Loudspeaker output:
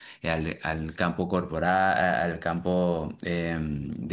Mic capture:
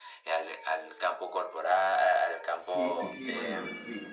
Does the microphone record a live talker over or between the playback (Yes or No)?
Yes